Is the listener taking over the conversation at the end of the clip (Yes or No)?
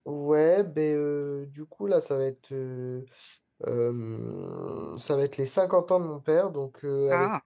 No